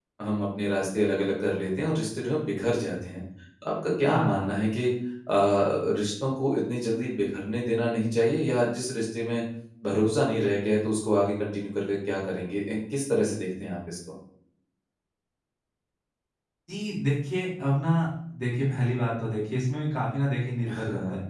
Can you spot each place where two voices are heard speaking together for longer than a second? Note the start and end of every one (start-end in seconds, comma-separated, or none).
none